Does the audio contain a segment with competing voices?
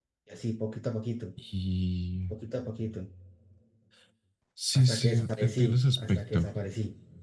Yes, from 4.8 s

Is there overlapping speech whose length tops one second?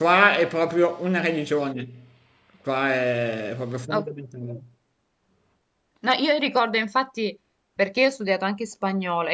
No

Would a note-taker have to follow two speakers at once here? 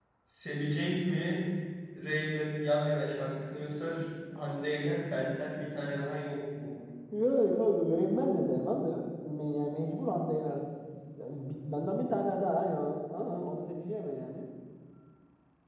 No

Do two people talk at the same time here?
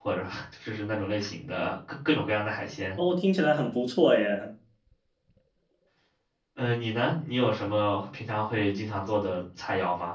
No

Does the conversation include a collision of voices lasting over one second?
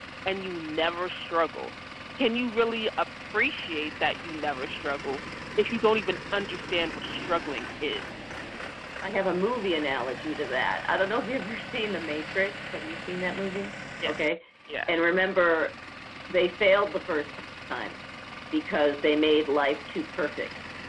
No

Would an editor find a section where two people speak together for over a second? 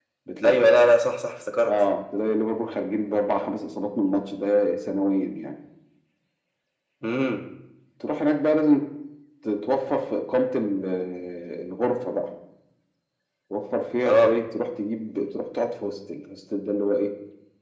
No

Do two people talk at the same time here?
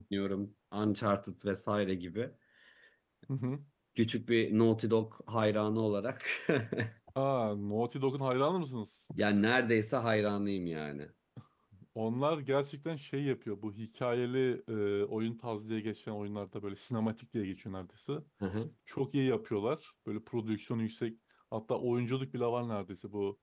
No

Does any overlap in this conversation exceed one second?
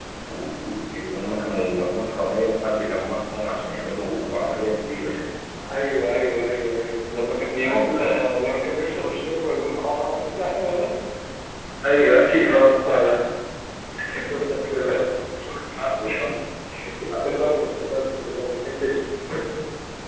No

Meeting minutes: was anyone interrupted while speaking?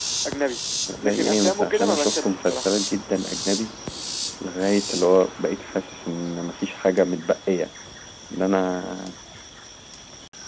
Yes, from 1.0 s

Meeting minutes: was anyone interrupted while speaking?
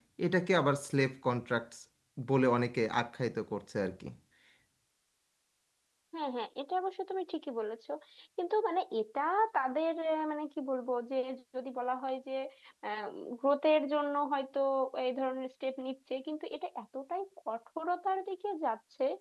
No

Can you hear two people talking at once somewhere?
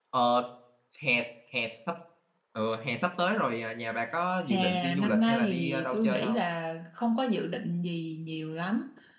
Yes, from 4.5 s

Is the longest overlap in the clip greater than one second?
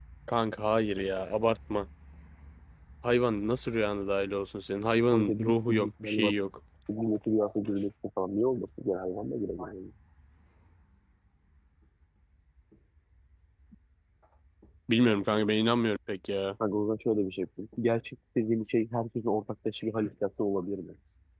Yes, from 5.1 s

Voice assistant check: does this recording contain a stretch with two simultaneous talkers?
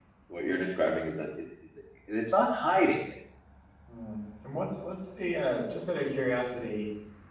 No

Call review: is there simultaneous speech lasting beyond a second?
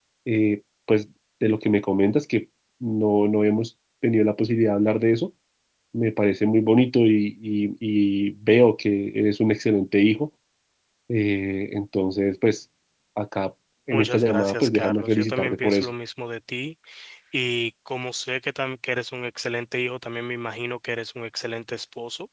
Yes, from 13.9 s

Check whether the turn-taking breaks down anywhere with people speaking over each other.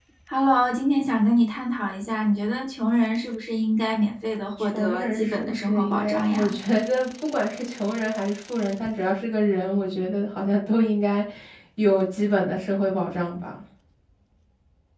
Yes, from 4.7 s

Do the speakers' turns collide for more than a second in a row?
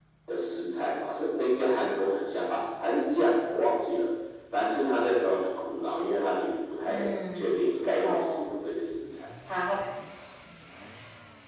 Yes, from 6.9 s

